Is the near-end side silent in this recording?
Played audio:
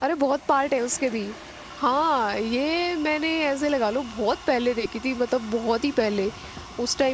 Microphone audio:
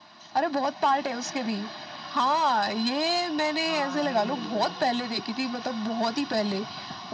No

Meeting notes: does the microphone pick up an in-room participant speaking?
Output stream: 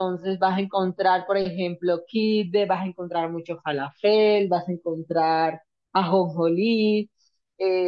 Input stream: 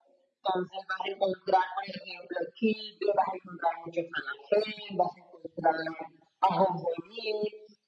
No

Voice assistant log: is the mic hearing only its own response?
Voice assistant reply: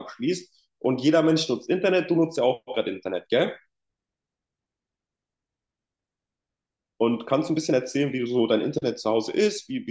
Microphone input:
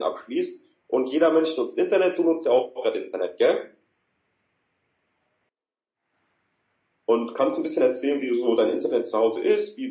Yes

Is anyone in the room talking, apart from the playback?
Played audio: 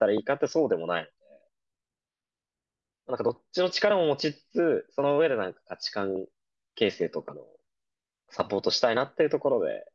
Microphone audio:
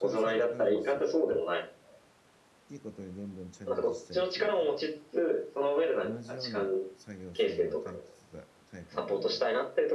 Yes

